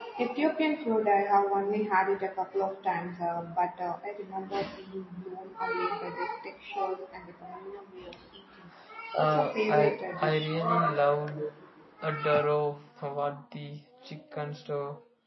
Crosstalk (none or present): present